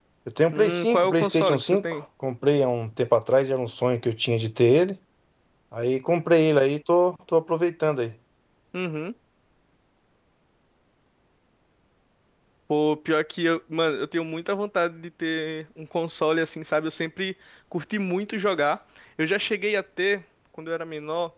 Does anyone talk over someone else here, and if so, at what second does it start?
0.5 s

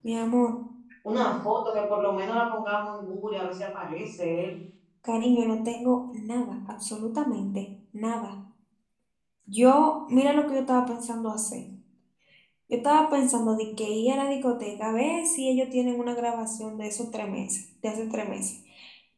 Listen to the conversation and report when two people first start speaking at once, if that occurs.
none

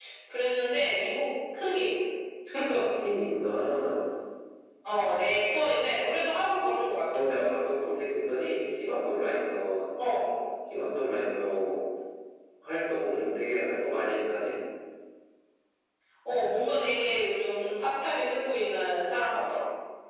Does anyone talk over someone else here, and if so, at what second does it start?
none

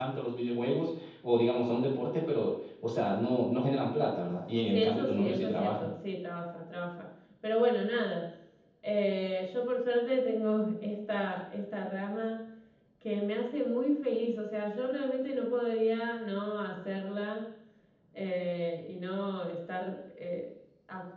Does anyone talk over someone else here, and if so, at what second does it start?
4.6 s

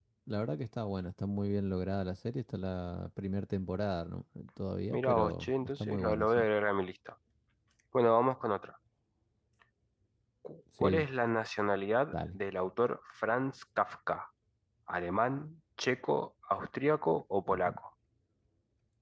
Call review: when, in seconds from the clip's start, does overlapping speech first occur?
4.9 s

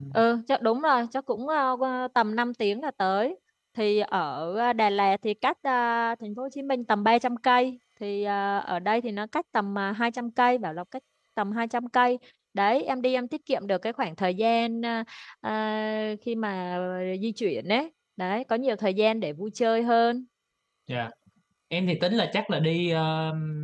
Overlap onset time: none

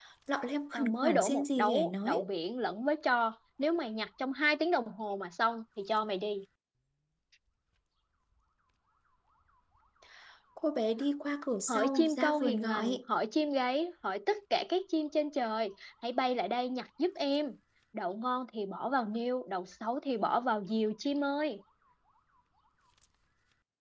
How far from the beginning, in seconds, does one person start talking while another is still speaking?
0.7 s

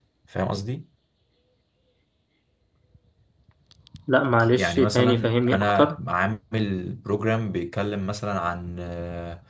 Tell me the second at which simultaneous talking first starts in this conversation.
4.5 s

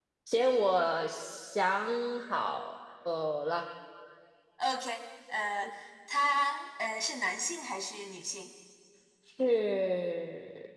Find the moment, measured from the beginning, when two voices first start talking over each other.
none

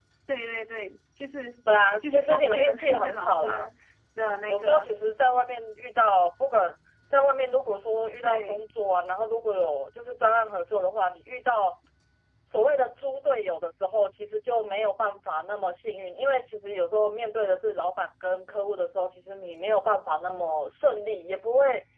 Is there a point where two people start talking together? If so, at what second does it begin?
2.0 s

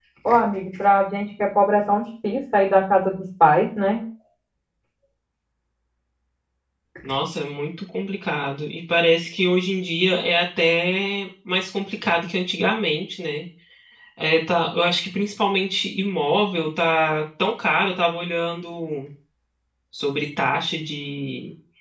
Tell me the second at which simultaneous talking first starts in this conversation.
none

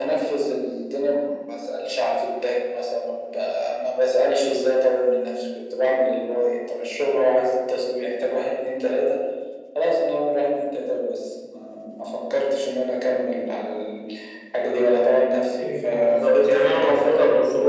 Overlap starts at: 15.6 s

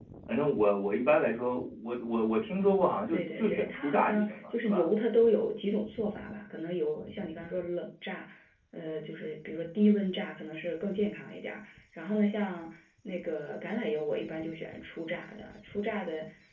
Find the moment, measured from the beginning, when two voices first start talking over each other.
3.1 s

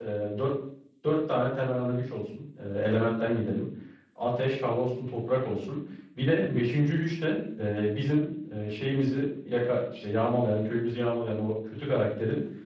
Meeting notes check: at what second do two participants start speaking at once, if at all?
none

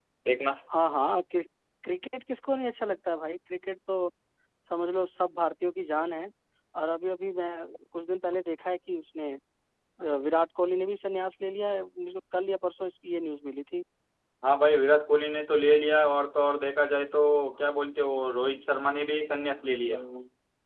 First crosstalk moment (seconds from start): none

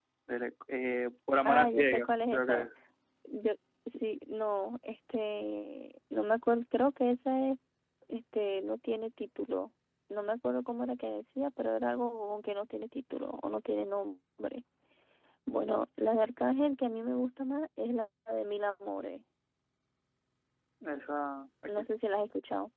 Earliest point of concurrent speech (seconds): 1.4 s

